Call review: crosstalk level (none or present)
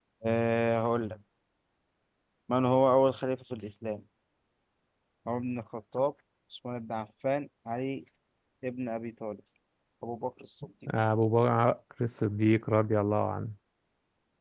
none